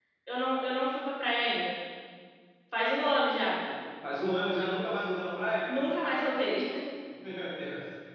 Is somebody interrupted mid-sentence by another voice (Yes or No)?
No